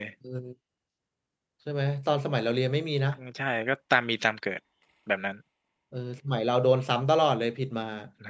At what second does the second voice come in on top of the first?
none

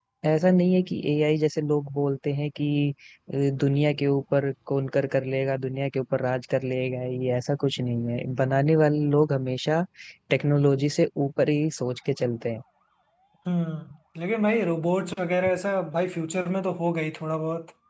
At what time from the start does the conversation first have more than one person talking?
none

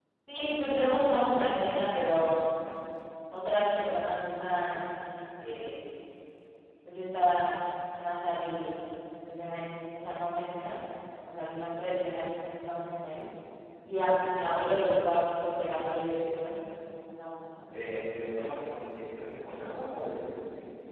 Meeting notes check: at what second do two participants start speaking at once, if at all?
none

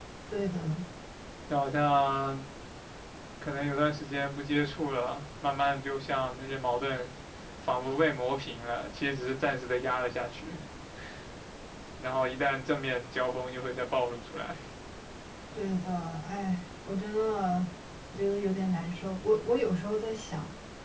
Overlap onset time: none

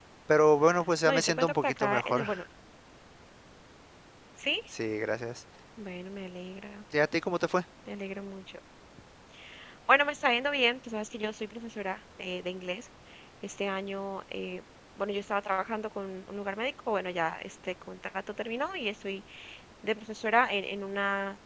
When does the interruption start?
1 s

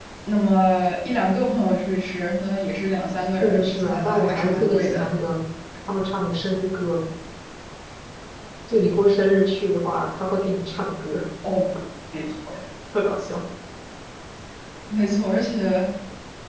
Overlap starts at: 3 s

